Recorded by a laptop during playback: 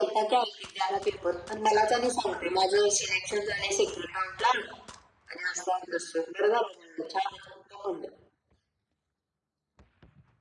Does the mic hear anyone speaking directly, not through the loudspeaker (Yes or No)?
No